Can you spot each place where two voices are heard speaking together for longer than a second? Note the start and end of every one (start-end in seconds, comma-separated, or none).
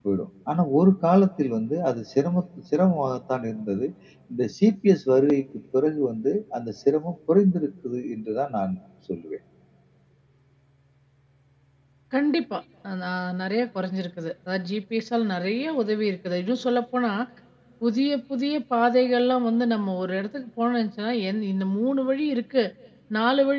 none